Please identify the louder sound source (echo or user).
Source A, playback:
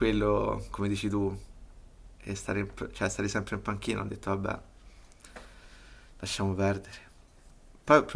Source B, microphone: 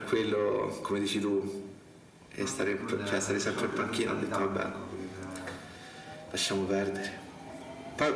echo